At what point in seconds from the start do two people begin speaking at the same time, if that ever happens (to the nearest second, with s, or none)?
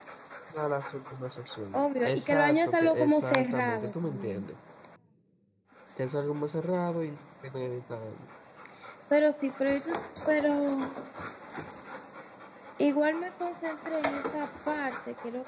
2 s